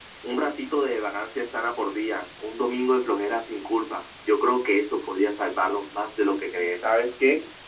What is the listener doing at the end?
taking over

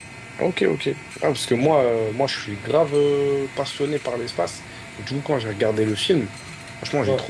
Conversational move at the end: listening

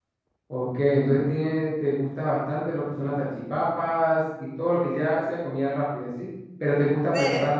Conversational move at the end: listening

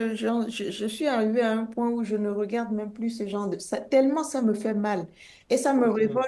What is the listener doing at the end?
listening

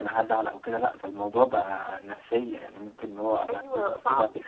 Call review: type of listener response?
taking over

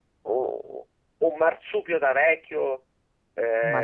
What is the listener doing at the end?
listening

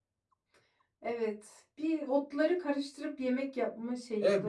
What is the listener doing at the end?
taking over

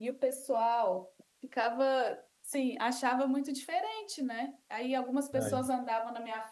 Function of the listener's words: listening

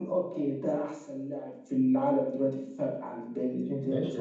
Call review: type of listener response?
taking over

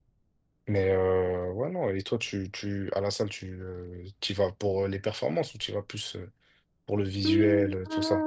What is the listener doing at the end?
taking over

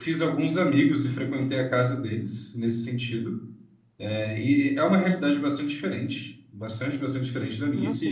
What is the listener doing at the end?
listening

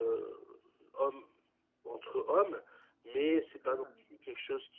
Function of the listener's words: listening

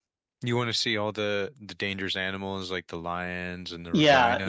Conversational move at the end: taking over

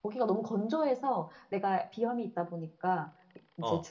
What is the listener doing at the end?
listening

